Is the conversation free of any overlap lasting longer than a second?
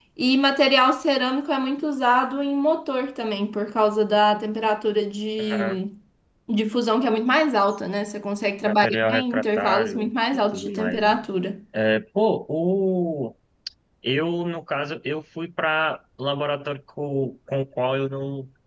No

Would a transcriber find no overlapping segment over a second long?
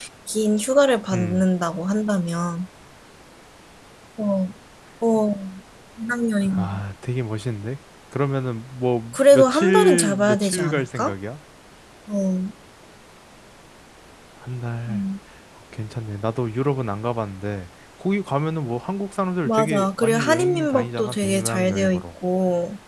No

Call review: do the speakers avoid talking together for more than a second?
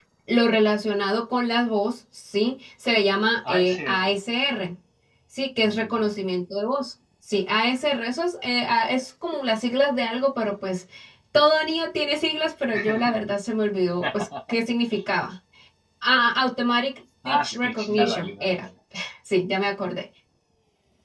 No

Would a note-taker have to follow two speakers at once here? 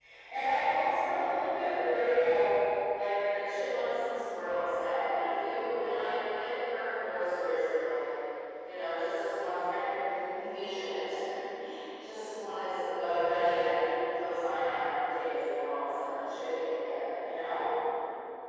No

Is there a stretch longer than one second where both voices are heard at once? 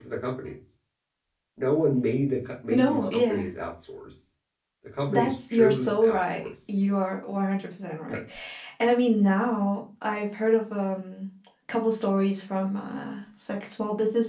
Yes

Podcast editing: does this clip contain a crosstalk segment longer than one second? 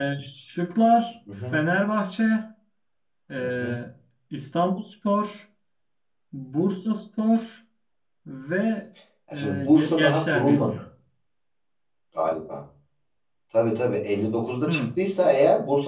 Yes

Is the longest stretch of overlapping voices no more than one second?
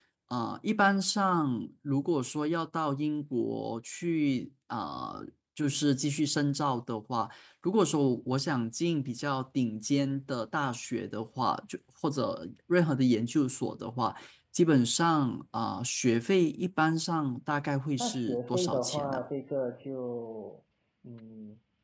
No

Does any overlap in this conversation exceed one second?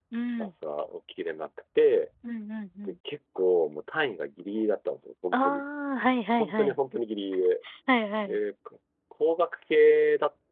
No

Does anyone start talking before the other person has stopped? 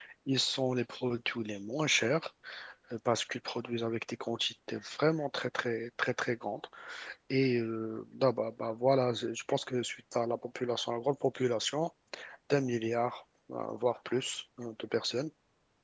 No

